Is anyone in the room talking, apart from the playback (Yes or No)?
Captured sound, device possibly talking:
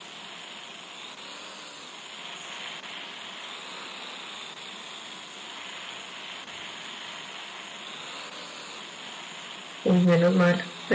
Yes